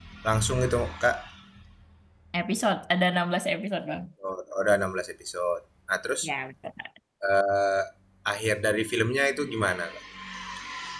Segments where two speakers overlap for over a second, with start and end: none

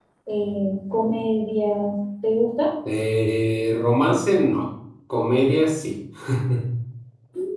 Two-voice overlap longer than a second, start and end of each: none

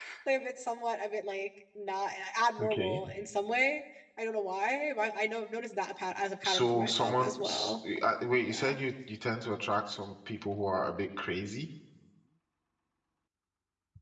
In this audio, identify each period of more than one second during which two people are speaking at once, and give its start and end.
6.4-7.8

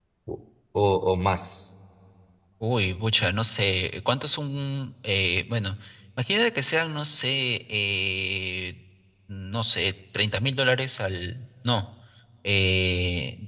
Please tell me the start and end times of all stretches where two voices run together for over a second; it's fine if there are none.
none

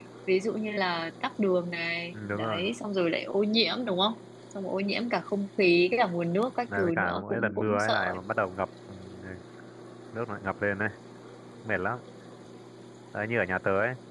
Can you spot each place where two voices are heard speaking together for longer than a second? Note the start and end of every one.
6.7-8.0

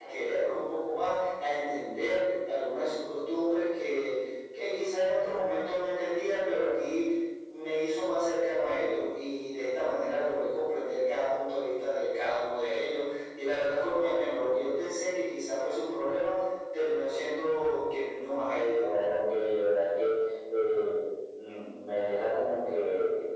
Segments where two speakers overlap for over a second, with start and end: none

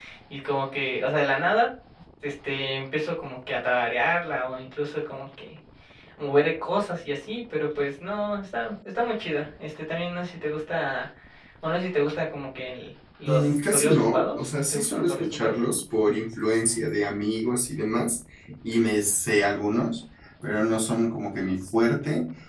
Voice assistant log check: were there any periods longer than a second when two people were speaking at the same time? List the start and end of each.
13.2-15.6

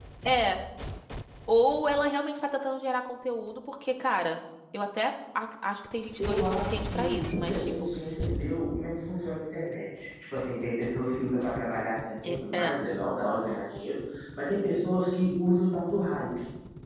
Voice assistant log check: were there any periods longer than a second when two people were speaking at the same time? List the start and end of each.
6.2-7.7

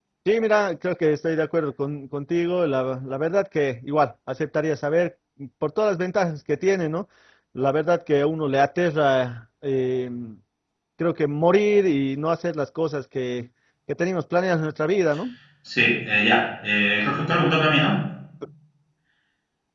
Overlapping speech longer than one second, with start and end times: none

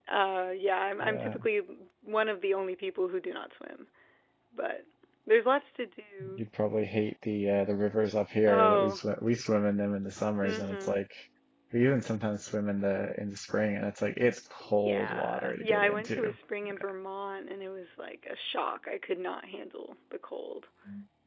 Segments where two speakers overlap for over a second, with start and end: 14.6-16.3

